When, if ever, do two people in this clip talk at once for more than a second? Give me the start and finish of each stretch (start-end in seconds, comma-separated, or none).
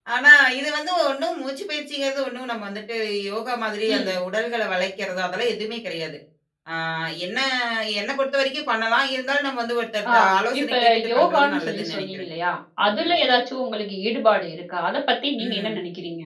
10.6-12.3